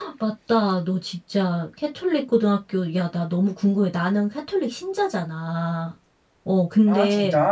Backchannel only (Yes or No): Yes